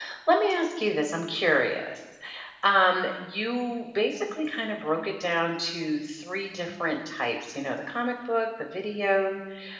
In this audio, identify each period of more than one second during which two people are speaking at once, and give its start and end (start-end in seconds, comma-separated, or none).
none